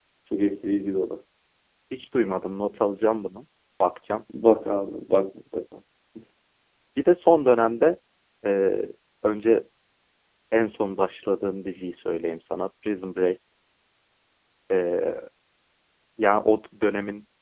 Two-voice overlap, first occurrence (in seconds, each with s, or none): none